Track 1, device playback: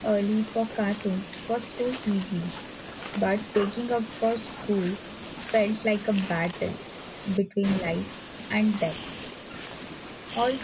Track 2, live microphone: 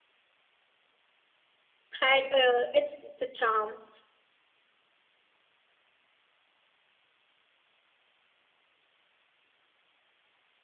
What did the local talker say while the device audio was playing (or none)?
had uh, its the charm,